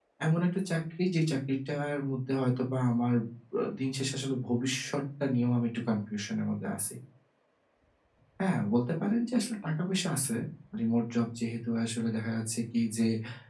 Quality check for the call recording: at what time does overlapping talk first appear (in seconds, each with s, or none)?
none